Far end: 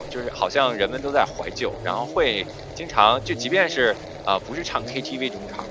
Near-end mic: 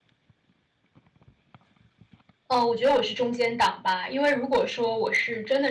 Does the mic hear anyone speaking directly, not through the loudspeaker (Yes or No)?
Yes